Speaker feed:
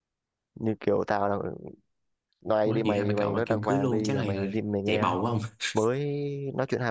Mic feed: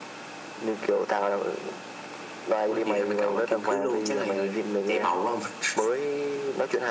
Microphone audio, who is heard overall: echo only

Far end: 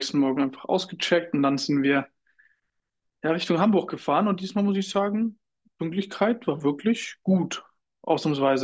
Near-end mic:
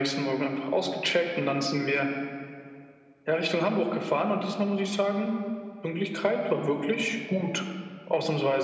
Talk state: echo only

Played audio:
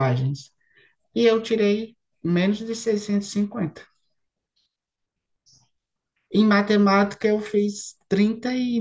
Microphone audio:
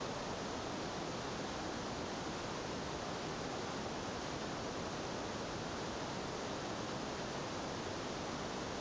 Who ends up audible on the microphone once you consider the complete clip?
neither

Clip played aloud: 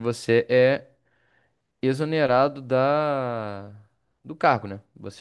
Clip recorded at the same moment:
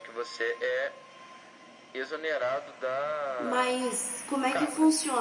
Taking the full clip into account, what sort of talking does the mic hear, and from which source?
both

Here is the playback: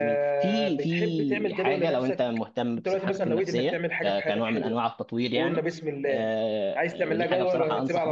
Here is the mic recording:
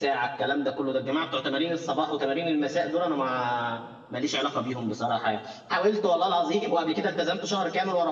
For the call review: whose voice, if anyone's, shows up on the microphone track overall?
user only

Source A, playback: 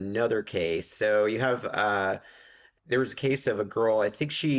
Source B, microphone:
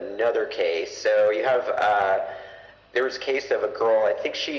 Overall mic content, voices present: echo only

